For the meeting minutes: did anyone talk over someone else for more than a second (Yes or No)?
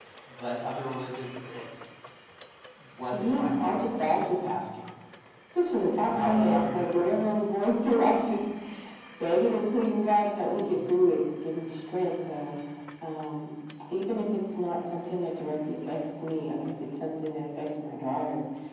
Yes